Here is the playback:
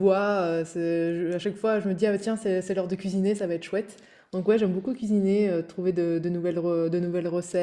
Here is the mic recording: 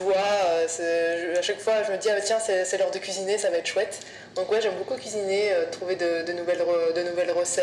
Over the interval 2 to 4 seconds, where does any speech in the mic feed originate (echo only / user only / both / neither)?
echo only